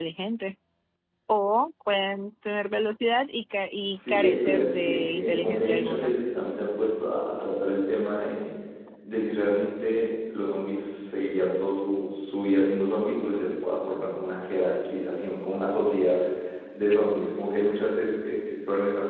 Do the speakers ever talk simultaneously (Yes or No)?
Yes